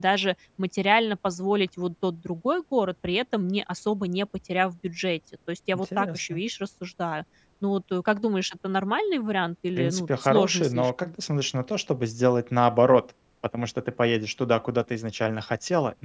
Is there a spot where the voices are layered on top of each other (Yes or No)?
Yes